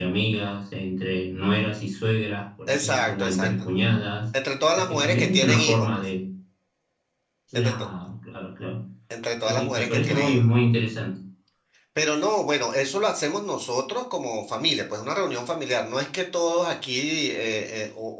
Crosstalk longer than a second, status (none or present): present